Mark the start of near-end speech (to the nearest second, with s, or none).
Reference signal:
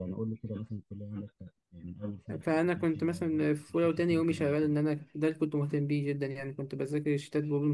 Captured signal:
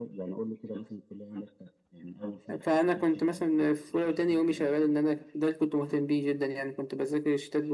none